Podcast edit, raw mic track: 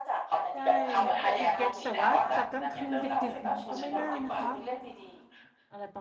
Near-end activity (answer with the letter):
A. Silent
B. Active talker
B